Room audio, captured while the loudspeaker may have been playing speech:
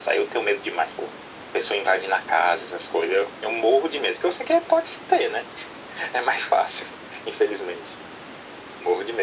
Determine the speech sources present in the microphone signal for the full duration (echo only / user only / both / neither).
echo only